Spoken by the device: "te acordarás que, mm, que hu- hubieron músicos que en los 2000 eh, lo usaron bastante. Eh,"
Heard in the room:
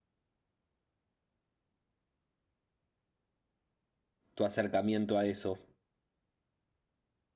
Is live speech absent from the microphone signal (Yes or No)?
No